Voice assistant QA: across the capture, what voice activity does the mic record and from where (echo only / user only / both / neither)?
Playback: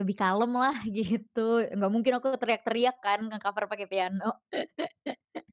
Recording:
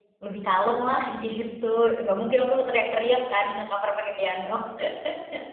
echo only